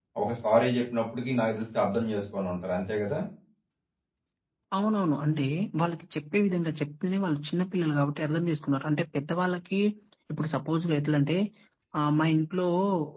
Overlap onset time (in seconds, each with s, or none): none